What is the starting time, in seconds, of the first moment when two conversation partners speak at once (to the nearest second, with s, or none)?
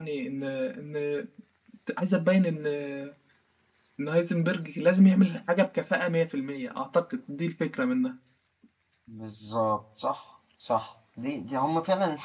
none